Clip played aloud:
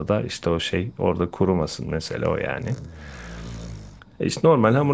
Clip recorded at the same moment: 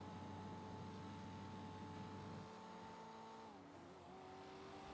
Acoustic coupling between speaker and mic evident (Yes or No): No